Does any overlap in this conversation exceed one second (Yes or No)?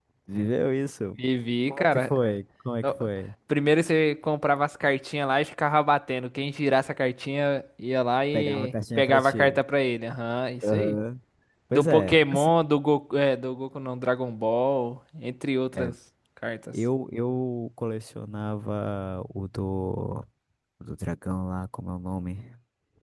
Yes